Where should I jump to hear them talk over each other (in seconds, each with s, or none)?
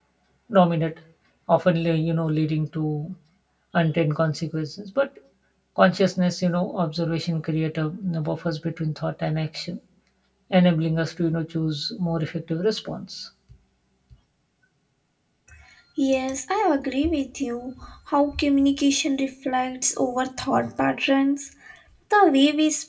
none